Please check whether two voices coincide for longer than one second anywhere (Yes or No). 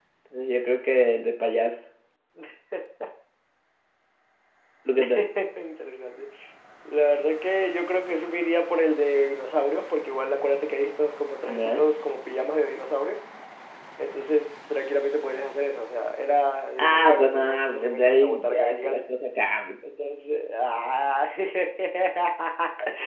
Yes